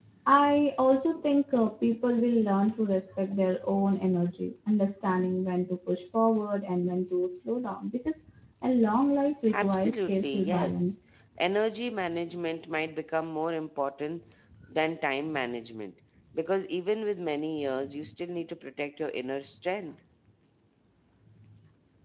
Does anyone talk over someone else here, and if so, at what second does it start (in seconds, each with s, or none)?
9.5 s